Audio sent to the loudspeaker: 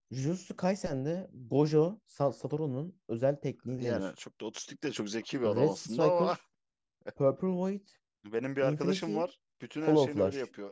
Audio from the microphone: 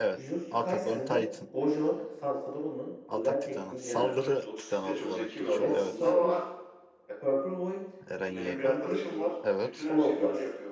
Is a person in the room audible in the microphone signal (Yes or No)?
Yes